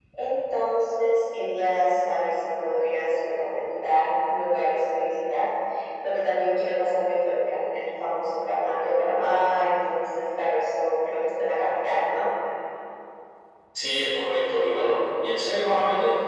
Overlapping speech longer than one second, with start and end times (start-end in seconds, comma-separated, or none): none